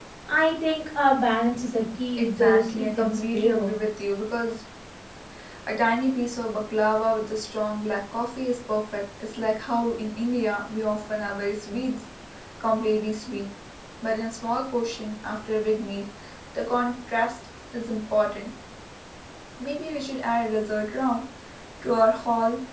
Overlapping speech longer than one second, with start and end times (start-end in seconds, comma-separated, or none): 2.2-3.7